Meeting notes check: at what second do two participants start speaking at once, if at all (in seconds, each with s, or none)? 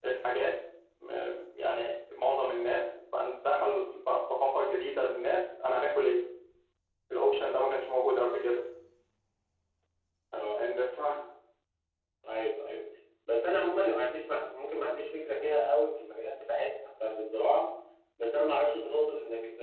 none